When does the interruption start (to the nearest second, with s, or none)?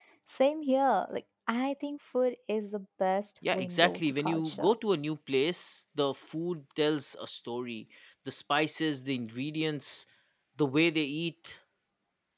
3 s